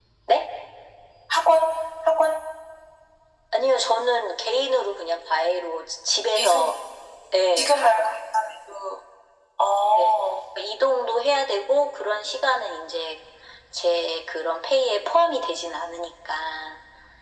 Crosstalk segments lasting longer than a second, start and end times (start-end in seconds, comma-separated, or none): none